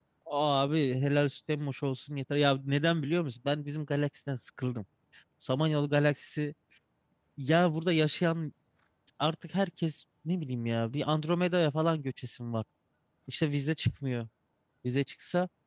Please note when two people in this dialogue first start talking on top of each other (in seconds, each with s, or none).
none